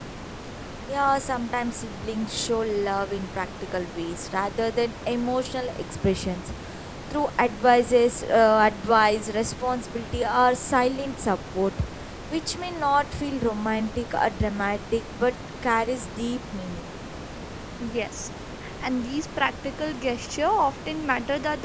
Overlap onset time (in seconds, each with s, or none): none